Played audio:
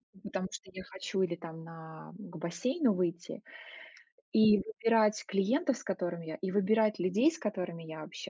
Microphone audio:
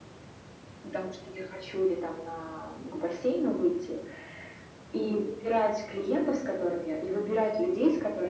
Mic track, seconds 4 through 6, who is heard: echo only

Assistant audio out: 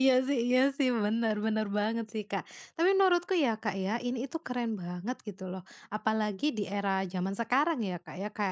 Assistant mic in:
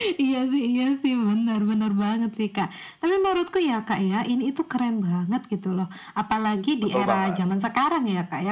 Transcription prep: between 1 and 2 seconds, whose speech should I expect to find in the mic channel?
echo only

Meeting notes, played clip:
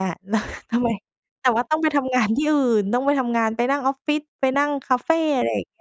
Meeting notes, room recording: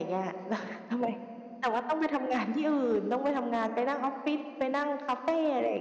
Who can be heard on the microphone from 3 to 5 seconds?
echo only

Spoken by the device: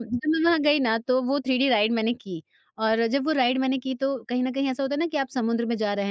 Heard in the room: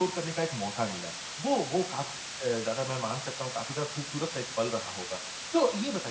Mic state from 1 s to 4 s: user only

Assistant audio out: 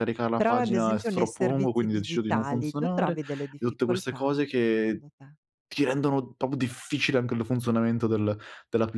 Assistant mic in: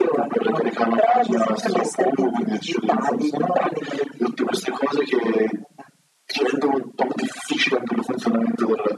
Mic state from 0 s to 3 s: echo only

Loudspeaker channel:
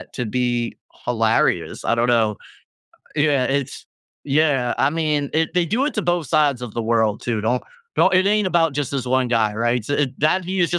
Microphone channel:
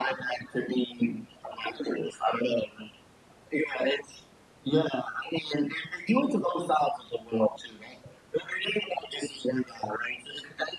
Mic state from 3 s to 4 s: echo only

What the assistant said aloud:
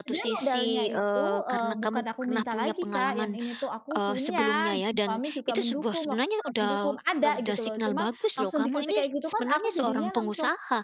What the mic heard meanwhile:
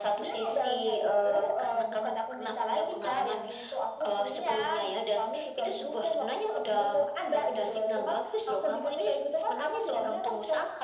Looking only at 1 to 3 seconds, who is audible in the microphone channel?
echo only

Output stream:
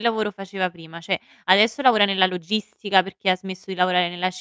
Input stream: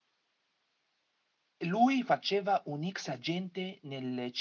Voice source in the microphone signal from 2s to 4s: user only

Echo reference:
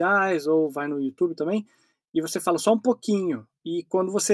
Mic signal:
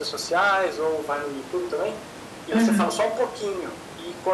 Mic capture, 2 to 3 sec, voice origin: both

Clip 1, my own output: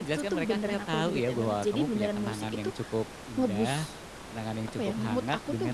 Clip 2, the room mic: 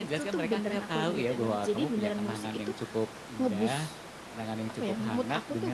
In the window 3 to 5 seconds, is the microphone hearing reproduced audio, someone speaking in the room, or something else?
echo only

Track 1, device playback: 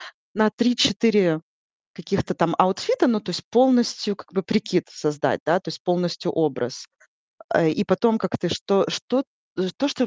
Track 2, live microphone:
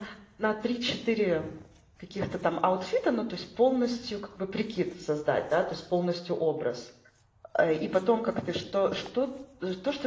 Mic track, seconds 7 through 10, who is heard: echo only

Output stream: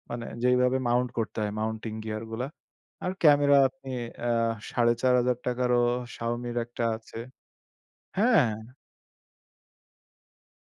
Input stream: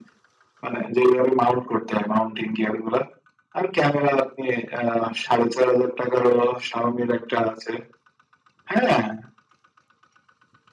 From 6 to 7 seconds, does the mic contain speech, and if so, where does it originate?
echo only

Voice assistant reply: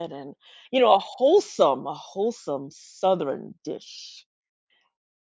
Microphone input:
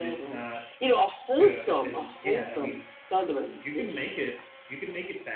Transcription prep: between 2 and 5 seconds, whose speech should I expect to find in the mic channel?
both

